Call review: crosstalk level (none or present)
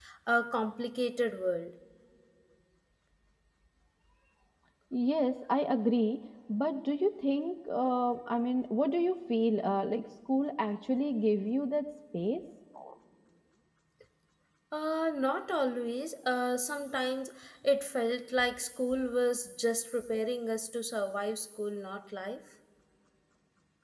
none